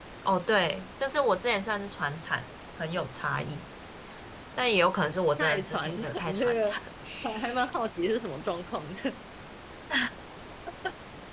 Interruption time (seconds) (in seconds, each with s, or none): 5.4 s